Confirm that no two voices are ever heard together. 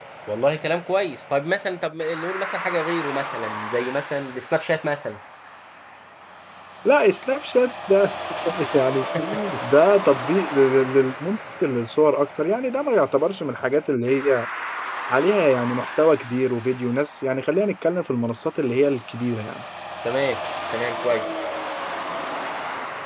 Yes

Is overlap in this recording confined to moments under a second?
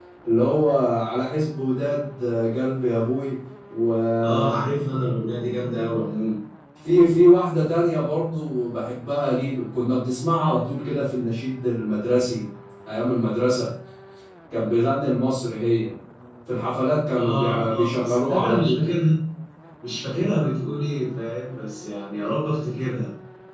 No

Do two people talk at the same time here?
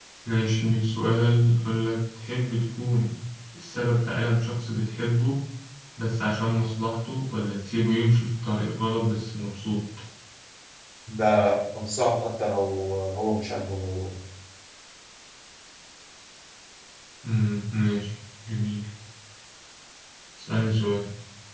No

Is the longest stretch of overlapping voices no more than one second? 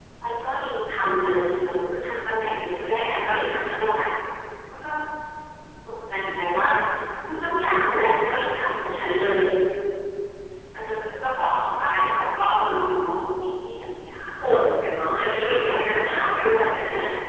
No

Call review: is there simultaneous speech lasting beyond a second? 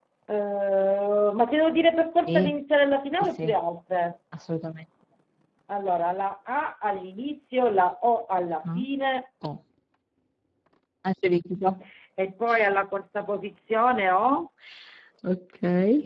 No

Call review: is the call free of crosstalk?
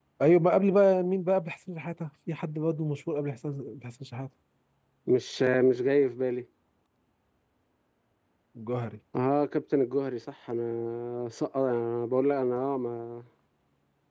Yes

